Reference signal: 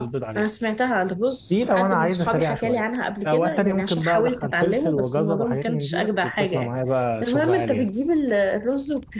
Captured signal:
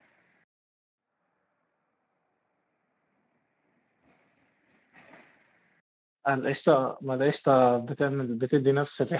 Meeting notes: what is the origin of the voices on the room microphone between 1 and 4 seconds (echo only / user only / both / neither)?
neither